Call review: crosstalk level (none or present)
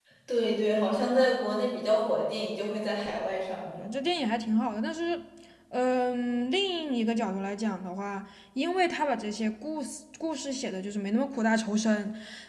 none